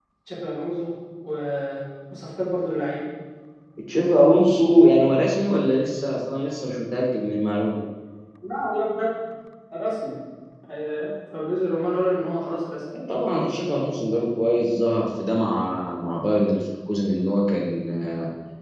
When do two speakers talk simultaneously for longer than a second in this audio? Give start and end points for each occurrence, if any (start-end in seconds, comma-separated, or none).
none